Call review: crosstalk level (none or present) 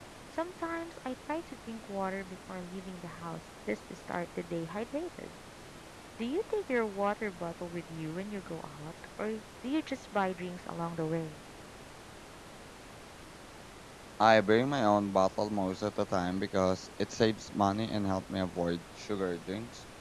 none